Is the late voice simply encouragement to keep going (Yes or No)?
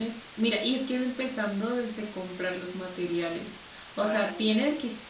Yes